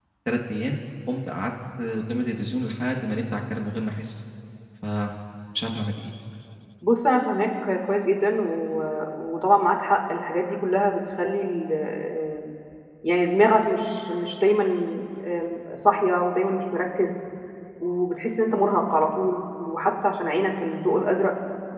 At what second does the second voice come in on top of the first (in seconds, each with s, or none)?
none